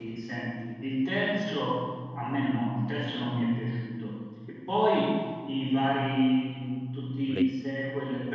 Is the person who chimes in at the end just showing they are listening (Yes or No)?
Yes